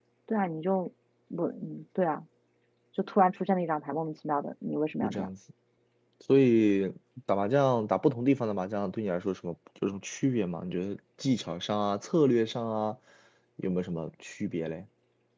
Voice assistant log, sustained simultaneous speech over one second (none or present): none